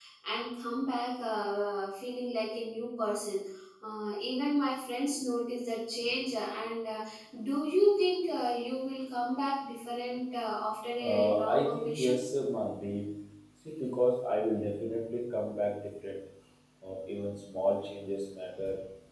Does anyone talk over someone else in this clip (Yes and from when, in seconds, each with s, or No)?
Yes, from 11.0 s